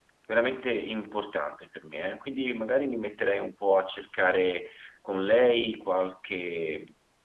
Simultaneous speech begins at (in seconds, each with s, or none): none